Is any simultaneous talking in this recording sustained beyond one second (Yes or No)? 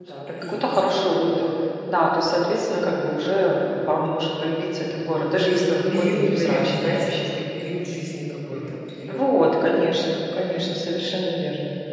Yes